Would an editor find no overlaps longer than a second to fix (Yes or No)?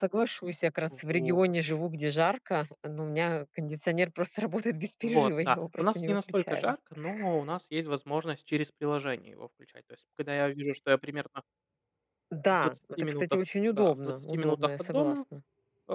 No